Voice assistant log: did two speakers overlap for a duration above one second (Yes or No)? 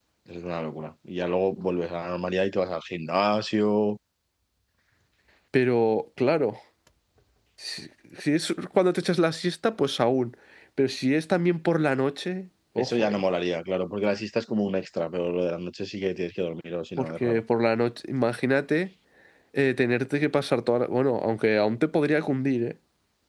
No